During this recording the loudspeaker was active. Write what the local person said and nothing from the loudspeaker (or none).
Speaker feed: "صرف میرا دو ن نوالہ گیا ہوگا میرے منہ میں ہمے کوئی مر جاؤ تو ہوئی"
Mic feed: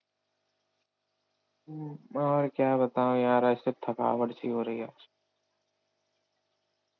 ہوں اور کیا بتاؤں یار ایسے تھکاوٹ سی ہو رہی ہے